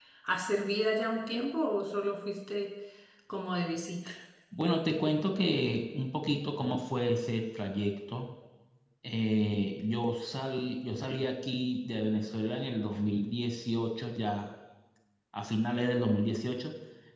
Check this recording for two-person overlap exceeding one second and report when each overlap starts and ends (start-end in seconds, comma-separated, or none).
none